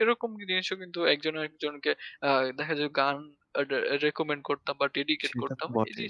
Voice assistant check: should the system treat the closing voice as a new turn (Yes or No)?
Yes